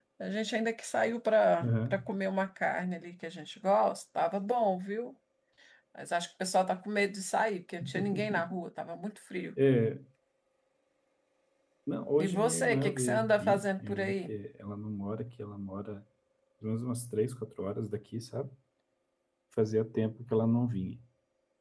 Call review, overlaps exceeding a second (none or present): present